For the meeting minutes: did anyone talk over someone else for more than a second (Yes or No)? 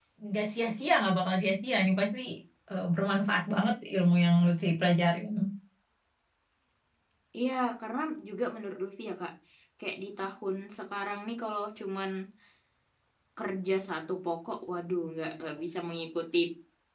No